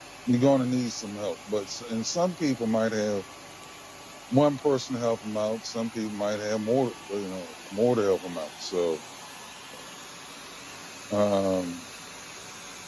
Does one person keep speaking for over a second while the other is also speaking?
No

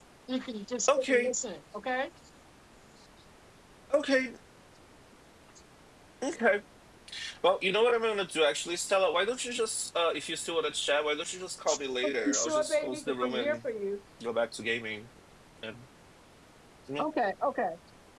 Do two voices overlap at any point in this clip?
Yes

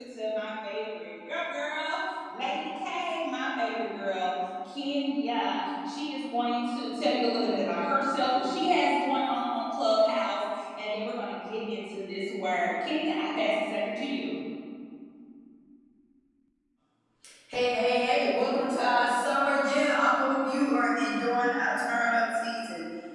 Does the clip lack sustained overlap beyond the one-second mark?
Yes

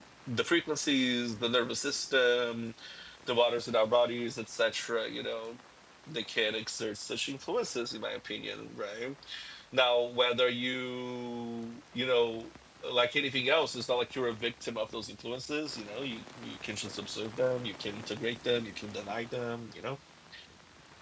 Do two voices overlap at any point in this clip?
No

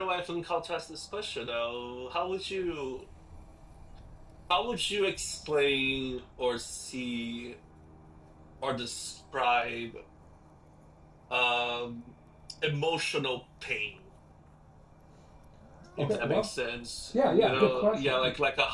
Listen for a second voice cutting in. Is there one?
Yes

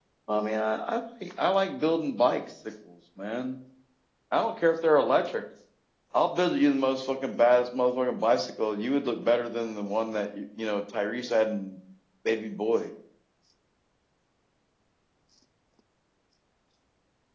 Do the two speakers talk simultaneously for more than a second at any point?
No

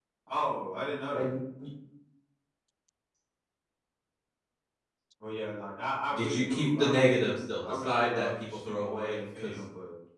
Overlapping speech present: Yes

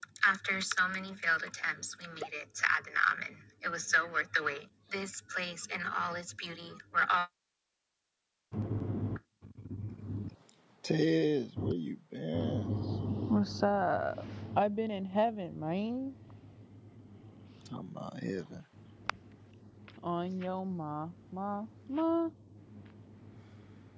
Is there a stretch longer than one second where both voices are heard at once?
No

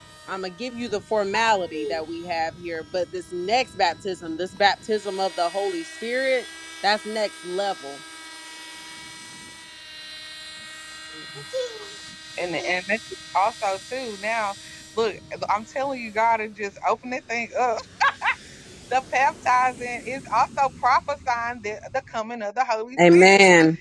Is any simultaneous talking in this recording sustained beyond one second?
No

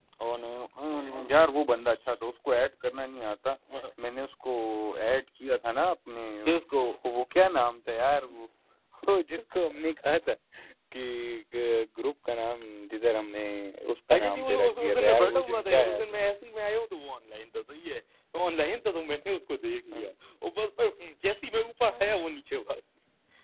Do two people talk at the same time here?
Yes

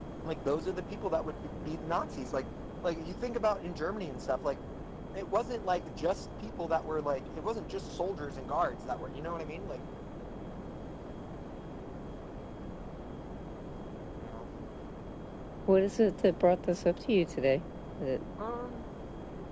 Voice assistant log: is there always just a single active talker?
Yes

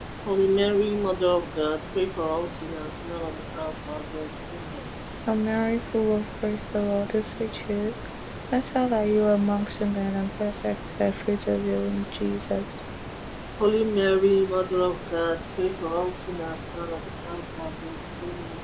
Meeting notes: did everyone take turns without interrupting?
Yes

